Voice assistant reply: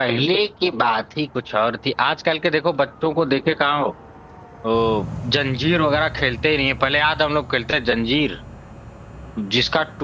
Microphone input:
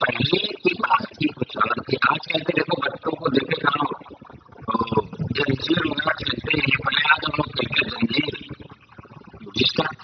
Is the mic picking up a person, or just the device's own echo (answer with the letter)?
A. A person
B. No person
B